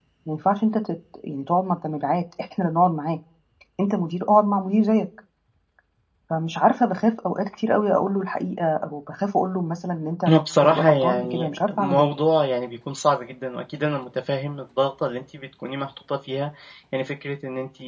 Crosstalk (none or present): present